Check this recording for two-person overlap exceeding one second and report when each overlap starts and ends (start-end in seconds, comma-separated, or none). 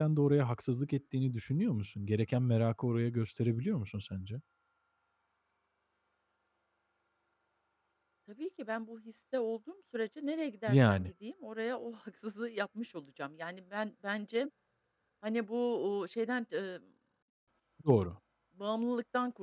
none